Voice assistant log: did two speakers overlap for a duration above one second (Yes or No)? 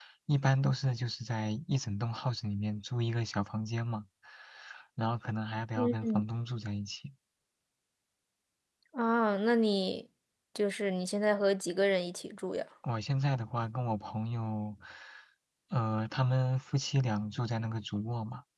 No